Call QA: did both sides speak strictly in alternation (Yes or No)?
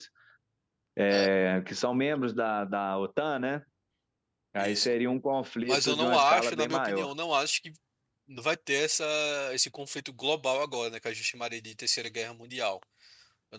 No